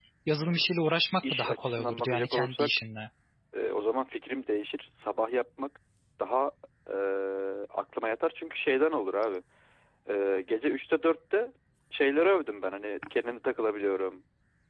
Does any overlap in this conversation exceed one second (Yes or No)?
Yes